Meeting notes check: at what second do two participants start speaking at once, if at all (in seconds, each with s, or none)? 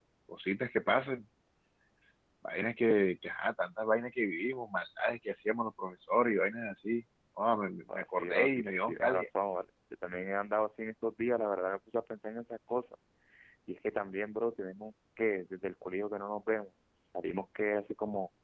7.9 s